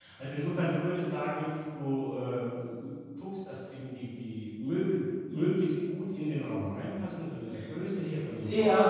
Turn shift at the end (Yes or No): Yes